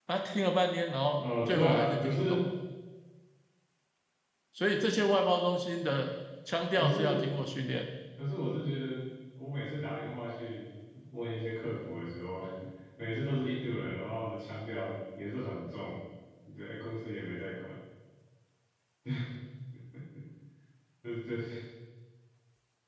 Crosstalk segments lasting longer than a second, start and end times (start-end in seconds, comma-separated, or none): 1.2-2.5